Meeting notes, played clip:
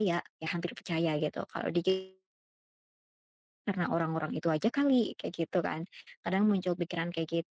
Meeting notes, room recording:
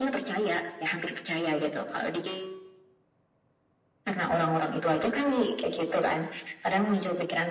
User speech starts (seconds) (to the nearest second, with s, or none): none